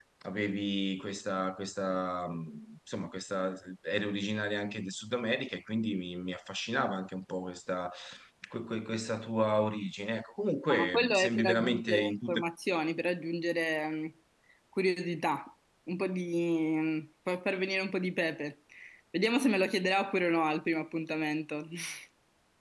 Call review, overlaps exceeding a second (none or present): present